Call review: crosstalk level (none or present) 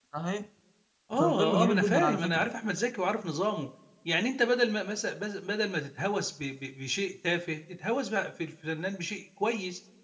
present